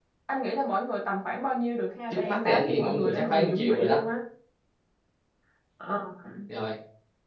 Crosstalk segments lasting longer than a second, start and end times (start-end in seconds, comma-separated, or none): 2.1-4.0